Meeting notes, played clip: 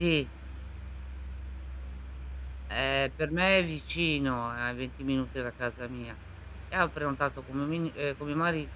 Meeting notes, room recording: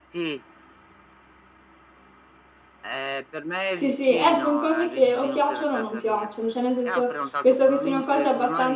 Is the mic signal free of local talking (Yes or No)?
No